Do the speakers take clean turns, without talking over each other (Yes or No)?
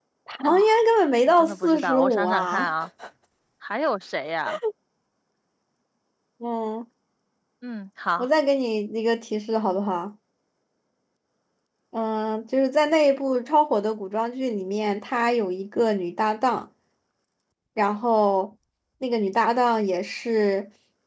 No